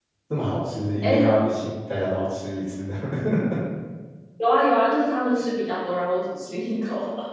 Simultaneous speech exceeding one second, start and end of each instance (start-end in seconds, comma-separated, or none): none